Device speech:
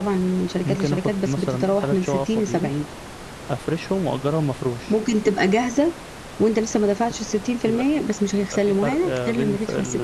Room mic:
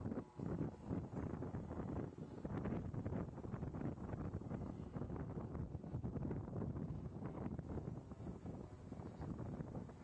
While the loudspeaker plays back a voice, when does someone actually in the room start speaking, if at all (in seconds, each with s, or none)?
none